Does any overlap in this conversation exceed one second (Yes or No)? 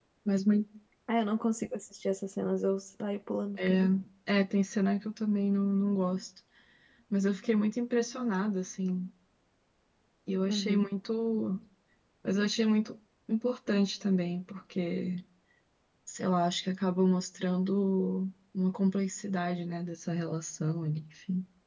No